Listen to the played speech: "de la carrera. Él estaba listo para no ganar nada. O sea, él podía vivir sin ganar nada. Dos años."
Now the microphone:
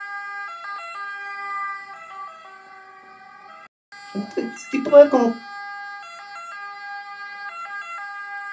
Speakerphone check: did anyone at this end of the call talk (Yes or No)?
Yes